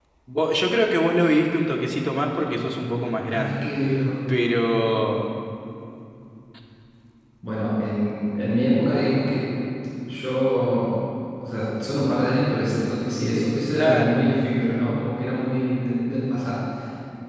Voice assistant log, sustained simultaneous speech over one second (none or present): none